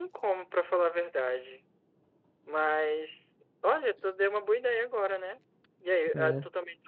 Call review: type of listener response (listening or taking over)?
listening